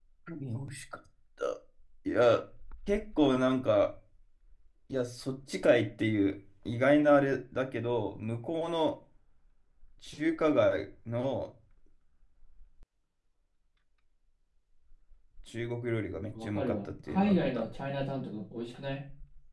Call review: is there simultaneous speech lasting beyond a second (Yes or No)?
Yes